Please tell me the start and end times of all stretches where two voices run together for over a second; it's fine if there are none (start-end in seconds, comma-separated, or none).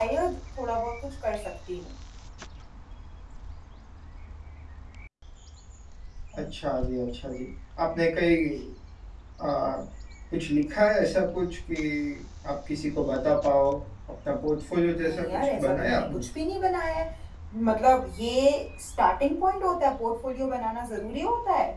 14.9-16.3